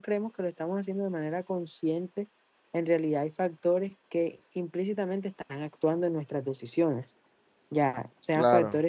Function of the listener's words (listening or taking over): listening